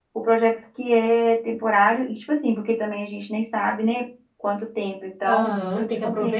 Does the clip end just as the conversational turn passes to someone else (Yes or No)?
Yes